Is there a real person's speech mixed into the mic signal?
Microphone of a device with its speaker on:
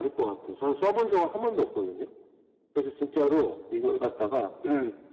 No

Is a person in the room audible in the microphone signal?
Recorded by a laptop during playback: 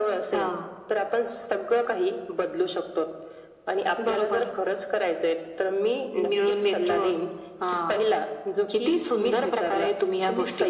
No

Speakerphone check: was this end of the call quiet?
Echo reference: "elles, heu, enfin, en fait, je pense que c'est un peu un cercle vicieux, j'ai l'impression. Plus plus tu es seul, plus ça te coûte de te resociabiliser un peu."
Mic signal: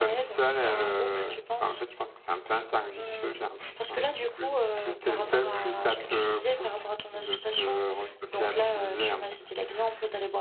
No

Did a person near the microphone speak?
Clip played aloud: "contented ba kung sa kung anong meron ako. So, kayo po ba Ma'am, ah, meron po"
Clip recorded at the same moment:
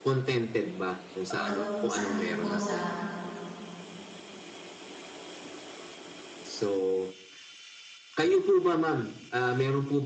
Yes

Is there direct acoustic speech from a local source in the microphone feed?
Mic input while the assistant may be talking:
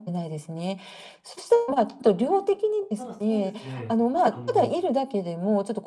Yes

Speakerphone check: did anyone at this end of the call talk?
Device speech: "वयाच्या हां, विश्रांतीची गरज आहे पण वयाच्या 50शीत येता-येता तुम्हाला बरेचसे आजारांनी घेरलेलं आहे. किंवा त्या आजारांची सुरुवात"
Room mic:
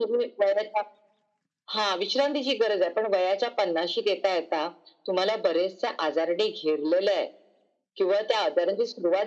No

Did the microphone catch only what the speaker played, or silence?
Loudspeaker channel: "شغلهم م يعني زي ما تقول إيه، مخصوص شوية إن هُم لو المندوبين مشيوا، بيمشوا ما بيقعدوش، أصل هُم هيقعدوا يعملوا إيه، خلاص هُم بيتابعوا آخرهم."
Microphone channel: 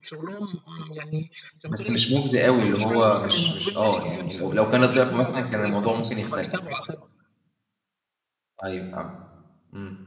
No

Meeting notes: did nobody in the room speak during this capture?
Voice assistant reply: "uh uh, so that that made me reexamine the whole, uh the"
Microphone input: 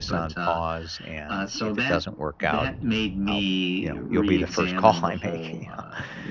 No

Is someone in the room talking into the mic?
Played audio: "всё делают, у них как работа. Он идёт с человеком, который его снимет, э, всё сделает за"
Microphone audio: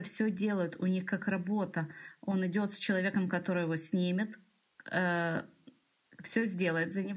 No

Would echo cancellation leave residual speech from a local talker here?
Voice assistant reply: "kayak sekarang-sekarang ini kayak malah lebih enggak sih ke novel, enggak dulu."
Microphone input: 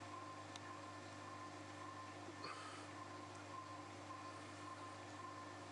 No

